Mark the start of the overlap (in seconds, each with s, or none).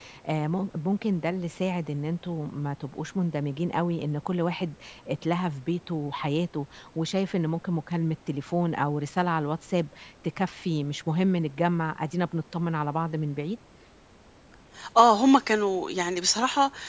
none